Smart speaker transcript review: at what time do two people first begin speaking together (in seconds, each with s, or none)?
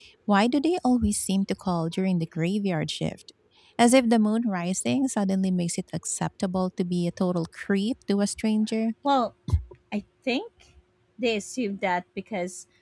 none